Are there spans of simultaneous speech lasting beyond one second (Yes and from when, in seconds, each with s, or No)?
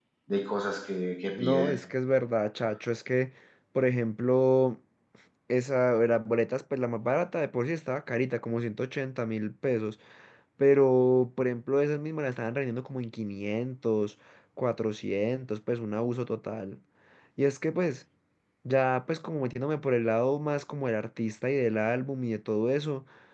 No